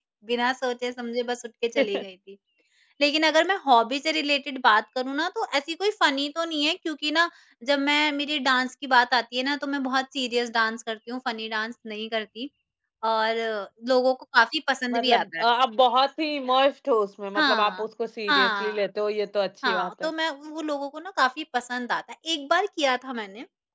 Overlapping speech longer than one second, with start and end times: none

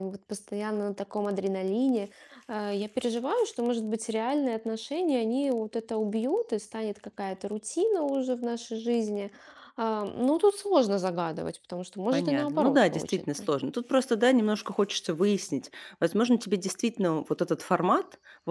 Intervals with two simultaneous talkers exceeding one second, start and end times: 12.1-13.4

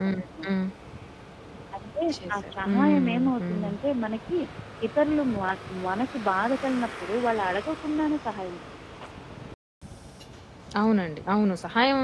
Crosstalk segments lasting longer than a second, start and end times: 2.3-3.7

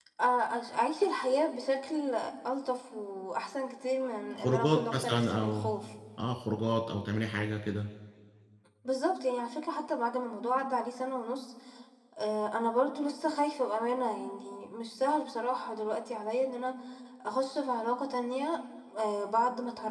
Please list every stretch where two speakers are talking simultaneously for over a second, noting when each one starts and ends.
4.4-5.7

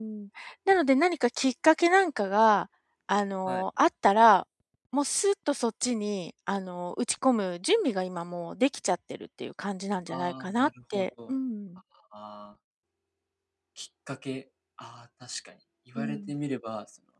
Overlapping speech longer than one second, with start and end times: 10.1-11.4

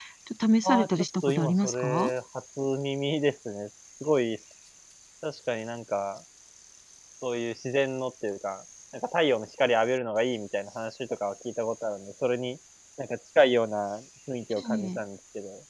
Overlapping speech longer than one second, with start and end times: 0.6-2.1

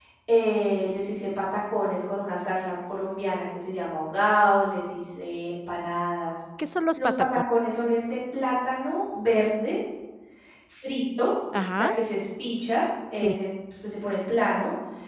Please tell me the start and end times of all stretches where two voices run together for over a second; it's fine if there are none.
none

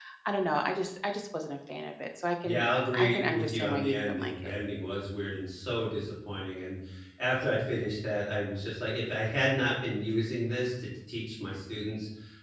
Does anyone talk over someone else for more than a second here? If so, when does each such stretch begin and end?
2.4-4.5

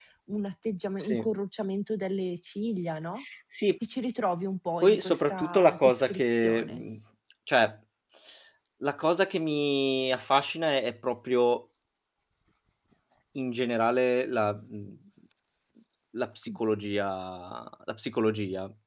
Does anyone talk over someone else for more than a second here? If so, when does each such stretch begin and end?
4.8-6.8

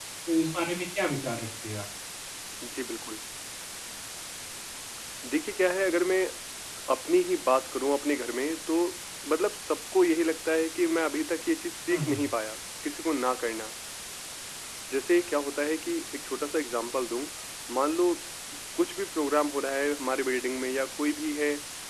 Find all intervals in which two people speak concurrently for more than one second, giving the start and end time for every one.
none

